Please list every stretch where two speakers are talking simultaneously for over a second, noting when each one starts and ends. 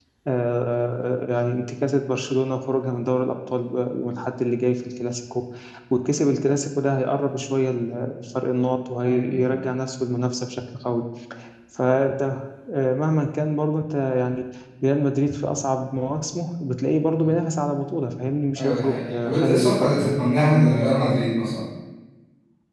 18.6-20.2

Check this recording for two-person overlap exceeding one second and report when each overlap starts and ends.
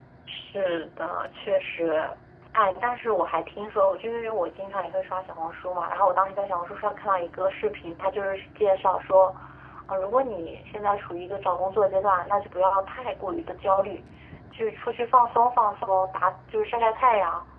none

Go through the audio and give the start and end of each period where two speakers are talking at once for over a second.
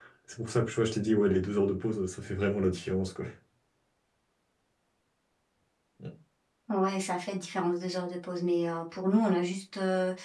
none

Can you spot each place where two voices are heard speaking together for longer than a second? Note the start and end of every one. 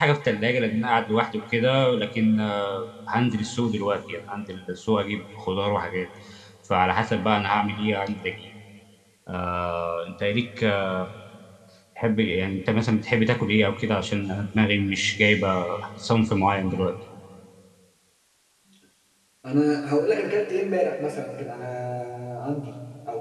none

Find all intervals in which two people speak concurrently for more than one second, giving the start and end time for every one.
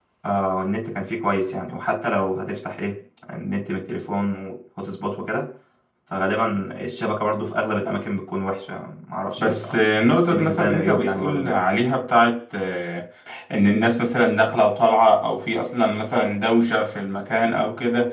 10.3-11.6

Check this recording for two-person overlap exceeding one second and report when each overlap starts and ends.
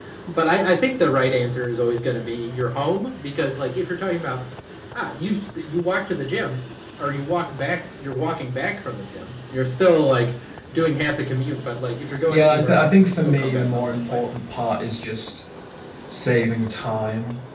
12.3-14.2

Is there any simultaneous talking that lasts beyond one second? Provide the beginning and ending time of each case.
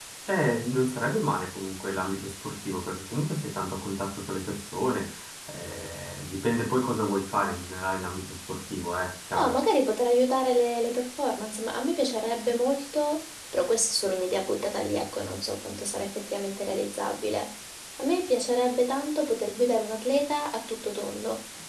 none

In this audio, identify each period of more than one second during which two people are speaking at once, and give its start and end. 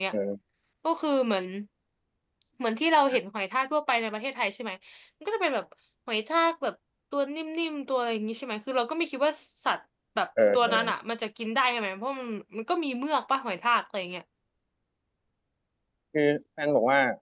none

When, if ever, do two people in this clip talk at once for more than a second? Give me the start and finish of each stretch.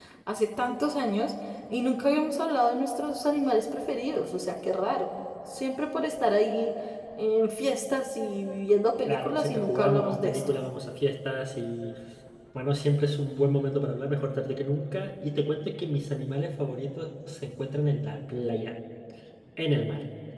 9.1-10.5

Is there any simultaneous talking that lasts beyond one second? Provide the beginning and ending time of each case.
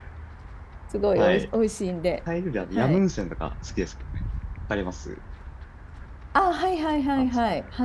none

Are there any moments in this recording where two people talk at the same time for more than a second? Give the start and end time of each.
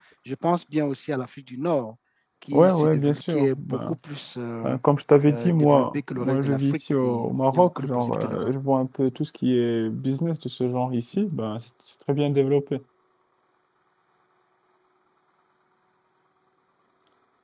2.5-4.0, 5.3-8.5

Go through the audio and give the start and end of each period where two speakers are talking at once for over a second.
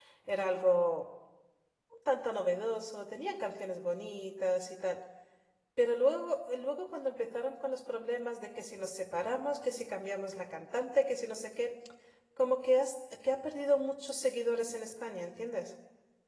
none

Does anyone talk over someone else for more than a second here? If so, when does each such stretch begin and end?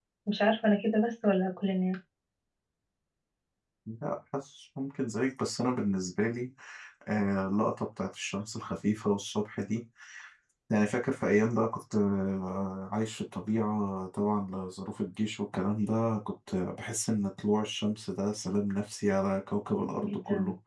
none

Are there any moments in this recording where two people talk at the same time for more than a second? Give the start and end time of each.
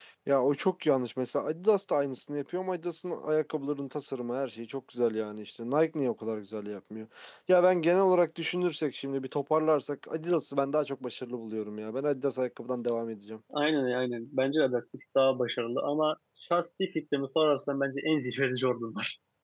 none

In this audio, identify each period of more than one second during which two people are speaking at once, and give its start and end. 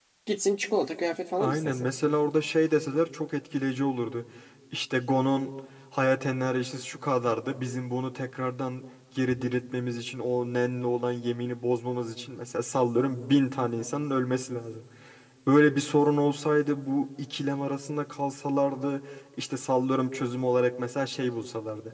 none

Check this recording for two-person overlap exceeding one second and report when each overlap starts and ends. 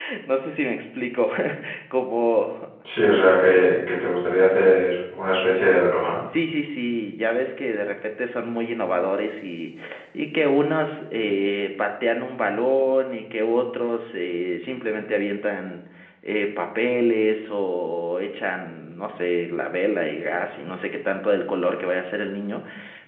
none

